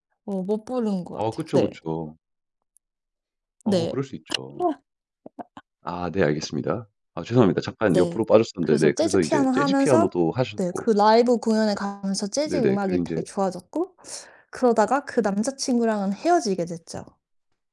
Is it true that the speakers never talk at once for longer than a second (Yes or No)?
No